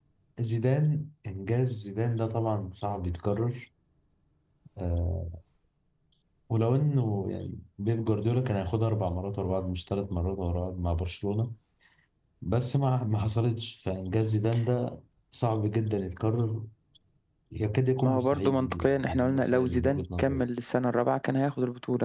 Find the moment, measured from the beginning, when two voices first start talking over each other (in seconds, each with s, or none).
18.0 s